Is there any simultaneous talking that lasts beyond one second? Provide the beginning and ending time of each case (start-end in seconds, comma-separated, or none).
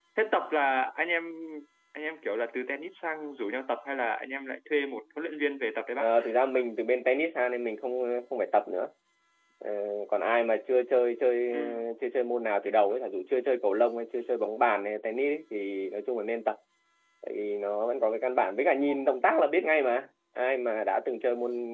none